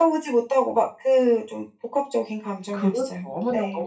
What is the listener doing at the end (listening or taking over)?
taking over